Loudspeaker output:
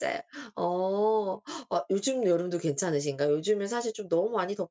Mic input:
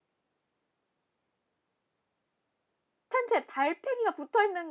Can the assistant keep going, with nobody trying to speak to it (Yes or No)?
No